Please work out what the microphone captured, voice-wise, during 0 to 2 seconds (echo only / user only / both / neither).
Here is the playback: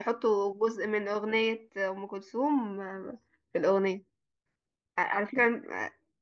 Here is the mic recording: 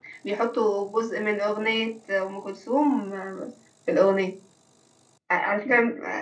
echo only